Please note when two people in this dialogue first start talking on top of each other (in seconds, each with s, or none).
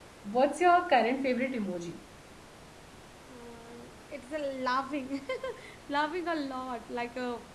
none